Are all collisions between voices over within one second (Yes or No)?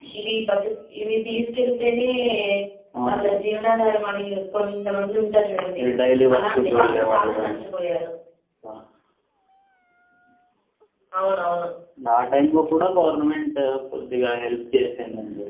No